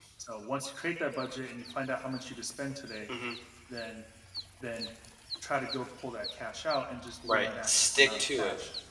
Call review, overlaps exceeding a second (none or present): present